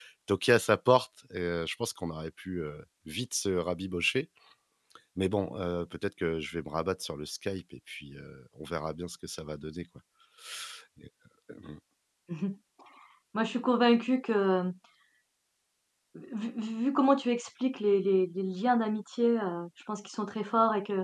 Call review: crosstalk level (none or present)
none